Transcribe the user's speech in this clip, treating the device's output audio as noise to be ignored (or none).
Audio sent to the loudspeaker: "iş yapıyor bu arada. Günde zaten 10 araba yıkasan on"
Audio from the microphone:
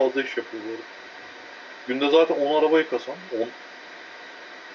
none